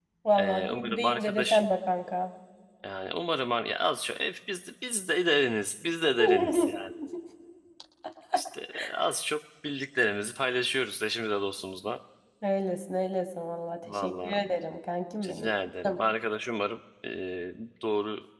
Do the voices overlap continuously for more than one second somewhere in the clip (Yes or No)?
Yes